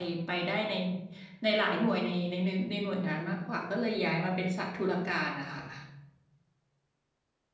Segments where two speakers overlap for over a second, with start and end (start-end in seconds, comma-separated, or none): none